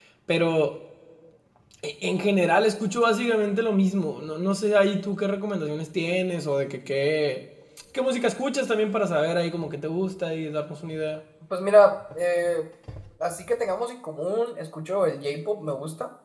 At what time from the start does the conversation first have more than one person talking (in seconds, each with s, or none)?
none